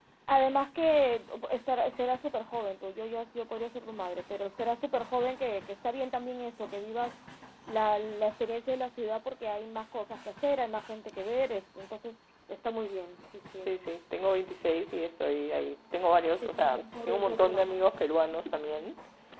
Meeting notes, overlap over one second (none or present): present